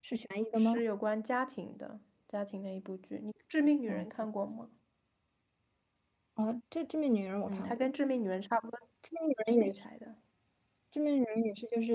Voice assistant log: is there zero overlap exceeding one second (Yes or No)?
Yes